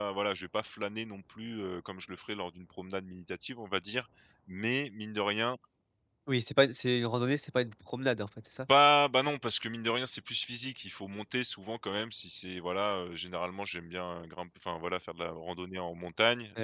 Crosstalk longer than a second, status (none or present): none